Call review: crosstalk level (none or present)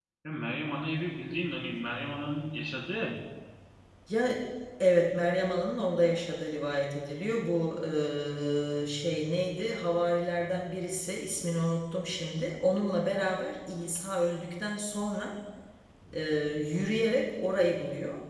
none